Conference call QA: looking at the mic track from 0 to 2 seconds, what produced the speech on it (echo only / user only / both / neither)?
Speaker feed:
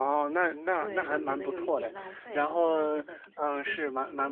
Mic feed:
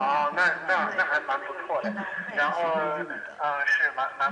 both